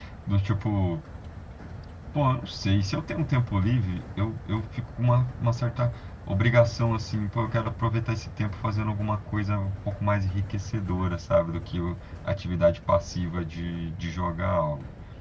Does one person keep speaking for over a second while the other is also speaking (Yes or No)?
No